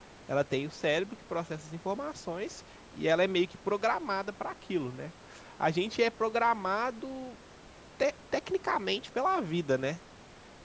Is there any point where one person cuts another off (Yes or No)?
No